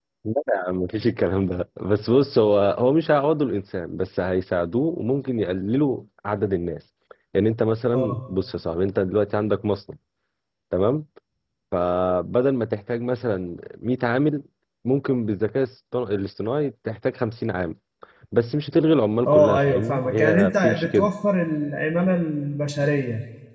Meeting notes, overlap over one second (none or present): present